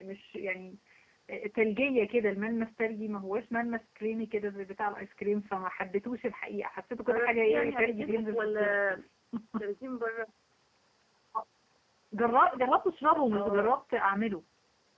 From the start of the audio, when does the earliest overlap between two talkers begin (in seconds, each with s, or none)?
7.1 s